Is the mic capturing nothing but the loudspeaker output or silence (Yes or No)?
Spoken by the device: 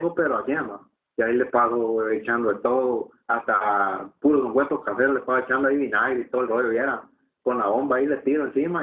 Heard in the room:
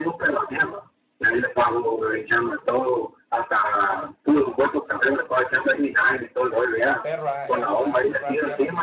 No